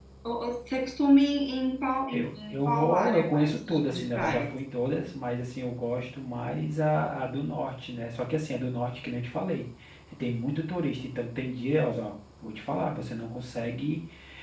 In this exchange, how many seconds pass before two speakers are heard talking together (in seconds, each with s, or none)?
2.1 s